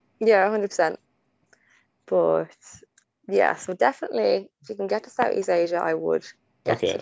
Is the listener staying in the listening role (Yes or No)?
No